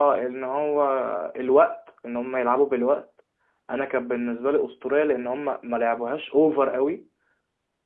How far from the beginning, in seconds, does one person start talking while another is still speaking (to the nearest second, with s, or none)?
none